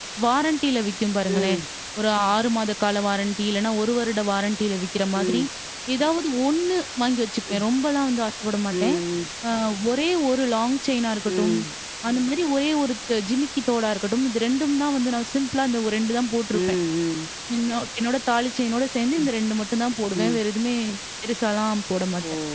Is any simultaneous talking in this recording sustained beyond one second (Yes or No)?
No